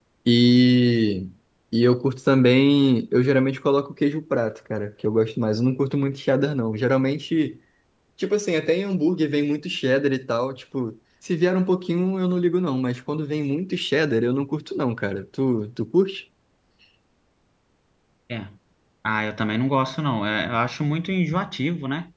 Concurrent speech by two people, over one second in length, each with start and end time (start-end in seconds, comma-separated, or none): none